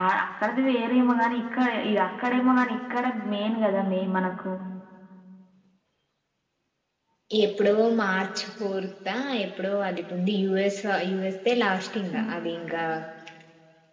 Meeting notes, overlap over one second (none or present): none